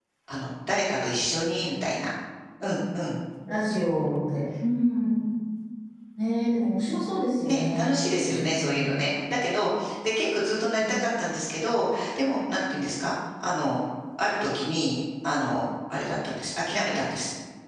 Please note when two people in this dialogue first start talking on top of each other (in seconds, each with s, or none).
7.4 s